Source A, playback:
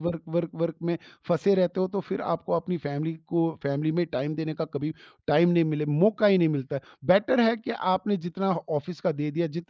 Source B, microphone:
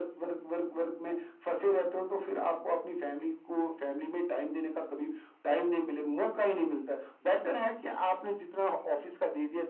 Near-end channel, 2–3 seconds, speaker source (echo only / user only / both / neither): echo only